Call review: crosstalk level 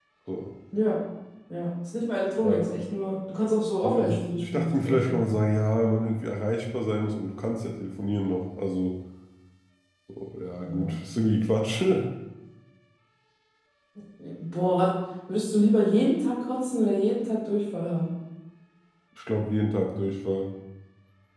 present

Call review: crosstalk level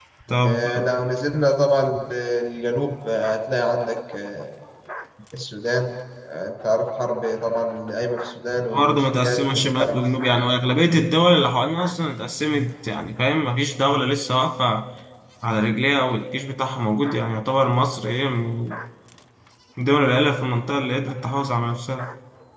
present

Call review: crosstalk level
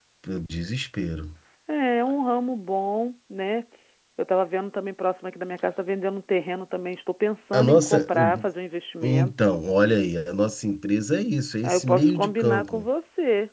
present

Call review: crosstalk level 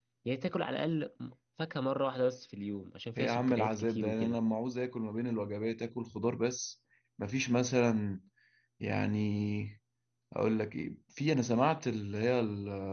present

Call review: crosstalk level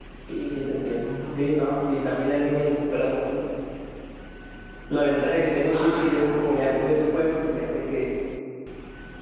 present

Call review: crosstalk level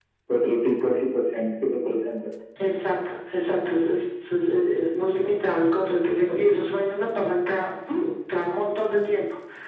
none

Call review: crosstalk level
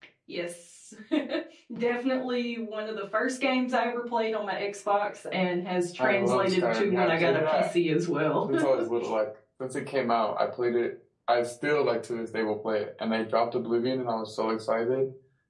present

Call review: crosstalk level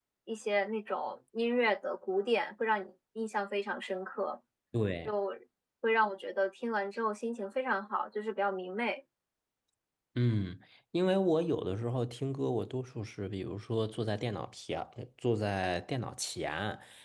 none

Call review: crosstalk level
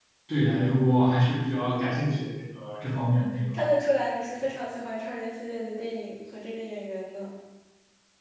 none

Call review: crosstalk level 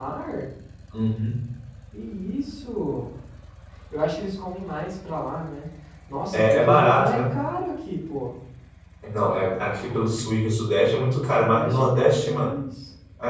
present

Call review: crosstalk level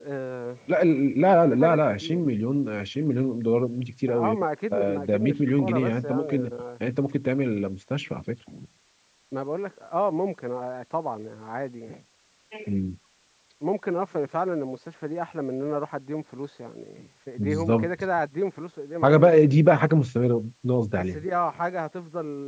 present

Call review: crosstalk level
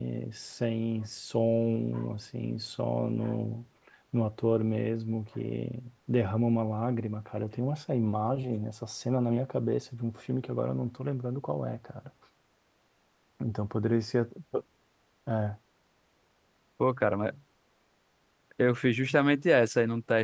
none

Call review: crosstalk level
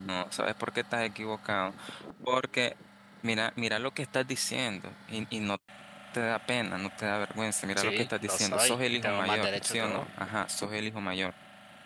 present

